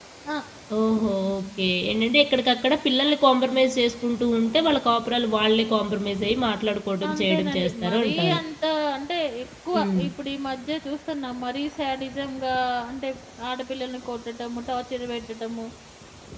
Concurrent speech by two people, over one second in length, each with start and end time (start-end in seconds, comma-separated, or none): 7.1-8.4